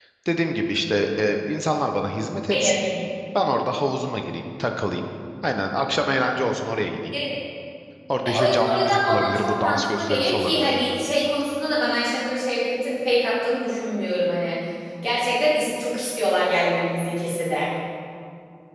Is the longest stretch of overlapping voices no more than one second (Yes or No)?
No